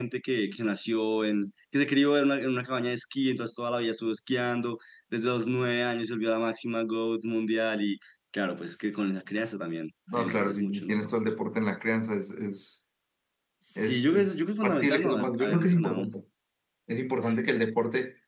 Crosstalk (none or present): present